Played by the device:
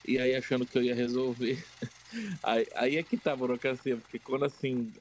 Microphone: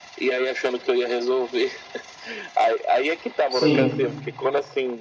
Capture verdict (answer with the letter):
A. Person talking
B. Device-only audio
A